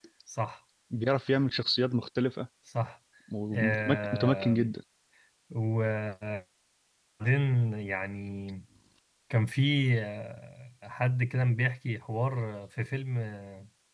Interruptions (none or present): present